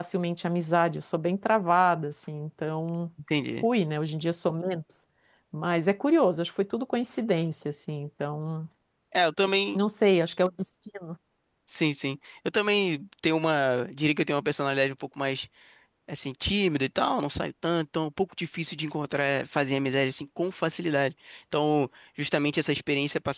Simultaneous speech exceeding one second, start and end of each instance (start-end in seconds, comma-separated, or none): none